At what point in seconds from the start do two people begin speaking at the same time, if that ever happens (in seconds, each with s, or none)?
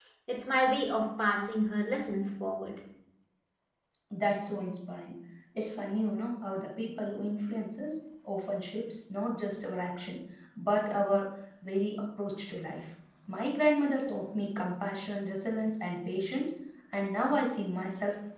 none